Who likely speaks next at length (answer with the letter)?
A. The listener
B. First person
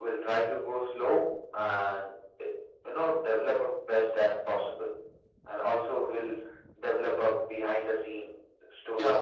A